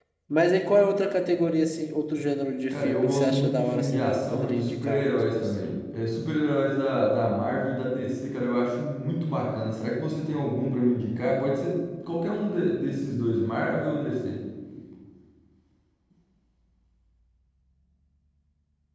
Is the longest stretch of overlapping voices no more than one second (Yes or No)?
No